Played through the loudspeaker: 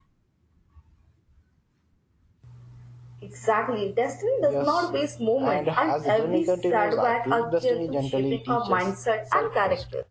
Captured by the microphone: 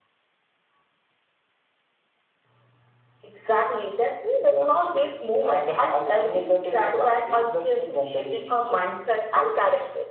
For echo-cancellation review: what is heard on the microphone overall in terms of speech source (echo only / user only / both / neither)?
echo only